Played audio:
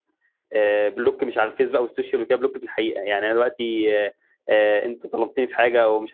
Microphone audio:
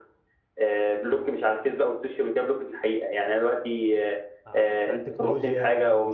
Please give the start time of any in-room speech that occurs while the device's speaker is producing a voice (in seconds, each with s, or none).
4.5 s